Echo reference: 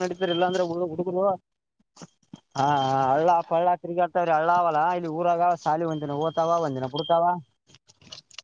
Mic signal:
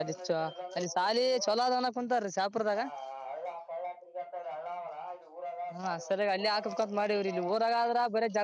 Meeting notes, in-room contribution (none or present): present